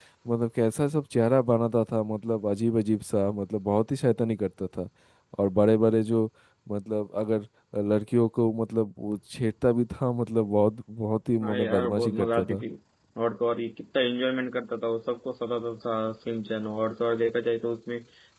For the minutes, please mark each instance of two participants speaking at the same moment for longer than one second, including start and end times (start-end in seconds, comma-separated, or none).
11.4-12.6